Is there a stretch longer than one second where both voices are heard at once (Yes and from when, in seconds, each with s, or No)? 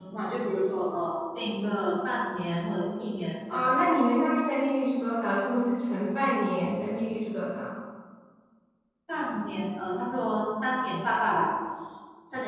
No